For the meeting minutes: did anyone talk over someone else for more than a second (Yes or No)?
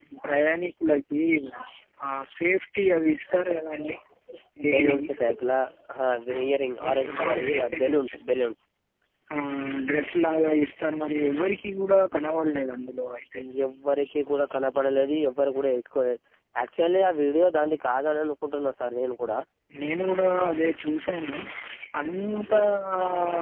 Yes